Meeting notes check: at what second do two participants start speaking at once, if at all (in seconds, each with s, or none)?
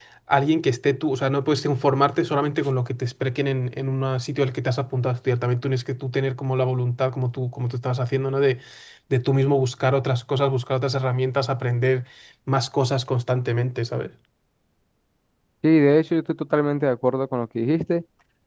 none